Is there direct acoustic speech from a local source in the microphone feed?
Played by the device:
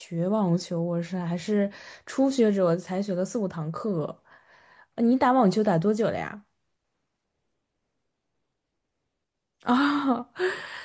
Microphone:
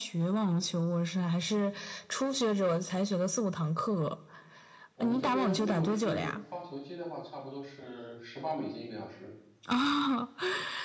Yes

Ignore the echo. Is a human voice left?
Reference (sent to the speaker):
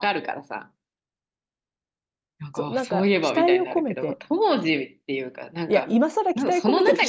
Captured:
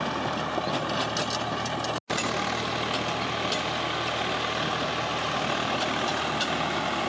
No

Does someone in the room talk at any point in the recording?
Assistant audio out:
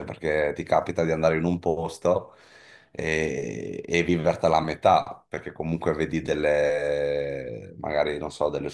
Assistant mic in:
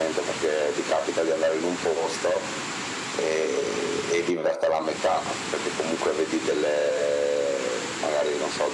No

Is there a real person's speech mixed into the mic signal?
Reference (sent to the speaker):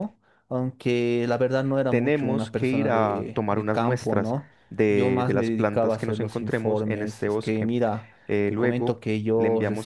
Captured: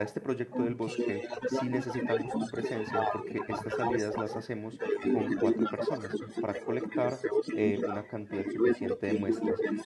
Yes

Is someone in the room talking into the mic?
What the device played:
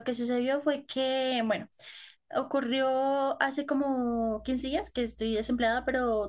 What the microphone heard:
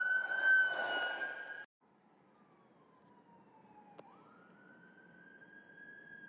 No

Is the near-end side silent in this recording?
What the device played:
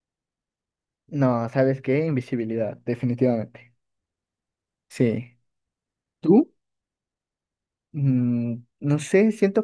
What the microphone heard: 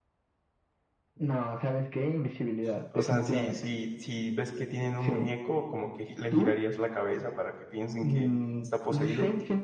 No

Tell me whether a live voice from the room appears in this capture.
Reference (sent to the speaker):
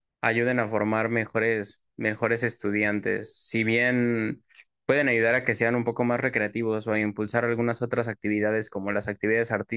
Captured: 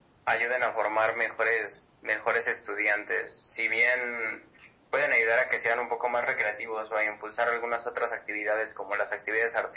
No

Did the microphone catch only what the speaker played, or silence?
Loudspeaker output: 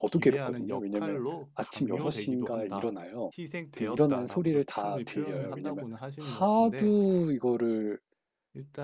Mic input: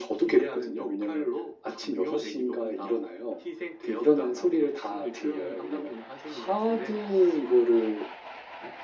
Yes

